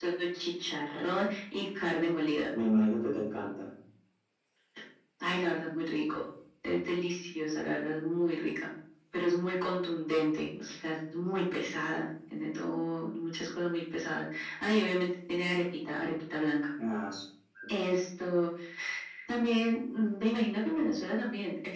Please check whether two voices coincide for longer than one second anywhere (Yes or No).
No